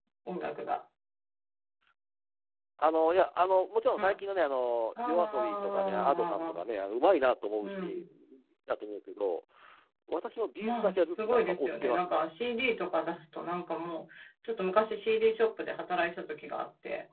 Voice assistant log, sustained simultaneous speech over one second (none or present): present